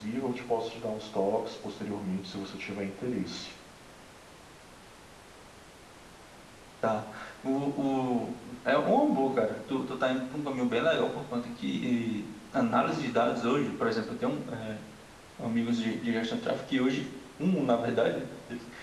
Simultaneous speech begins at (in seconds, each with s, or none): none